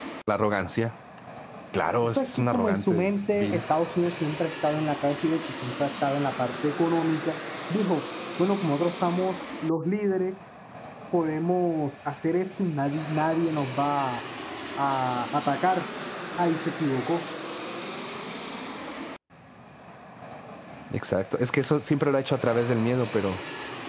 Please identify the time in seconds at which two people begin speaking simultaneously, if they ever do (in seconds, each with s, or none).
2.0 s